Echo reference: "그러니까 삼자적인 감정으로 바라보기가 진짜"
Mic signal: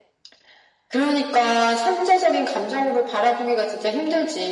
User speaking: No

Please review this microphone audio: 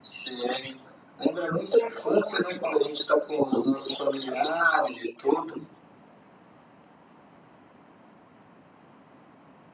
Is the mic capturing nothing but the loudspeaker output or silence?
Yes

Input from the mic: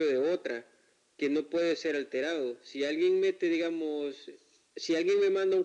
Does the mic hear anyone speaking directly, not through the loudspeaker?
No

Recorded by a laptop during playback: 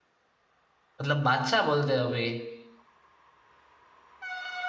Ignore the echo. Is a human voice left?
Yes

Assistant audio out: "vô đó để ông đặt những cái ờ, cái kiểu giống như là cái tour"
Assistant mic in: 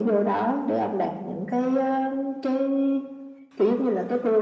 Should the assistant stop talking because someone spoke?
No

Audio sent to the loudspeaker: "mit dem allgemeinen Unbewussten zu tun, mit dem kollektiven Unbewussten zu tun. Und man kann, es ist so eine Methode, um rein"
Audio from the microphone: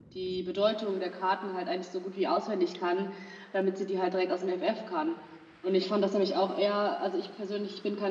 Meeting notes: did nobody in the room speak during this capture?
No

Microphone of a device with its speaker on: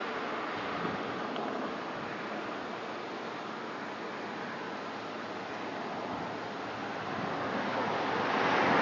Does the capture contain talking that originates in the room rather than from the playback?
No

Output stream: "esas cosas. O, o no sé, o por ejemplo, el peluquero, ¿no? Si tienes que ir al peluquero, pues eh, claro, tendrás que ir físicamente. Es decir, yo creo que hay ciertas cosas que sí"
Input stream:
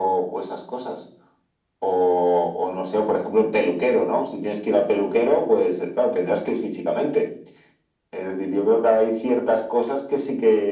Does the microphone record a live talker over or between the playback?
No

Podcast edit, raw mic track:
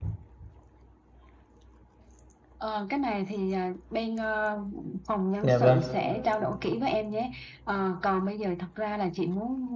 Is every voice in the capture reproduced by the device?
No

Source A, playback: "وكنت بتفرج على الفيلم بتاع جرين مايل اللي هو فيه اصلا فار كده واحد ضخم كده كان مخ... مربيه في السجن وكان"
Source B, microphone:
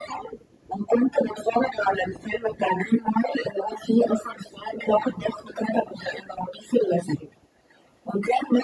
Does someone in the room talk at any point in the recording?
No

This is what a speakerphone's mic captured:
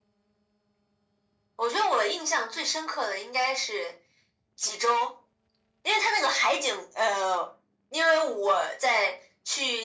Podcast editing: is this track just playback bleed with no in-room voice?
Yes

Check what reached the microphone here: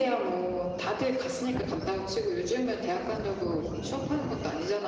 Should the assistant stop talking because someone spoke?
No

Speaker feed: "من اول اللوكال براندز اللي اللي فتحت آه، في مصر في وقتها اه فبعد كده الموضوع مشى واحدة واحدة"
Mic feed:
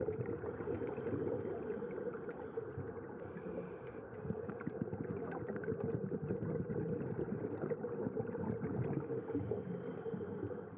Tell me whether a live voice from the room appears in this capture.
No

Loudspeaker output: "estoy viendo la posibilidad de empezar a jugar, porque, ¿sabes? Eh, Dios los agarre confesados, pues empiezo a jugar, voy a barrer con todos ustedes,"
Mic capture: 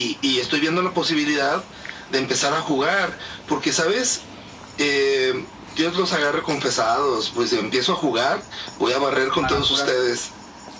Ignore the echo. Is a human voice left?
Yes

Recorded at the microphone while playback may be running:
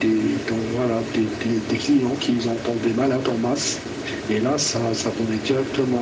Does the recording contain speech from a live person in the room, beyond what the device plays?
No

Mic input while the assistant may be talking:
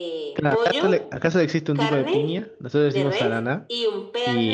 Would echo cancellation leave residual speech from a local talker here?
Yes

